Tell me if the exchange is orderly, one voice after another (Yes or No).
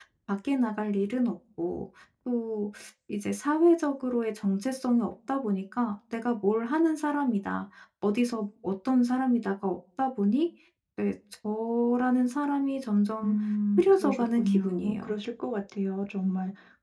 No